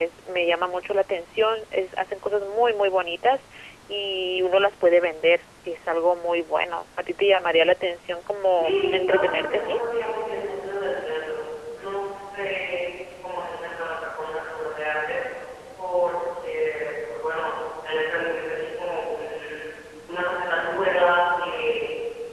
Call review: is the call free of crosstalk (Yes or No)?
No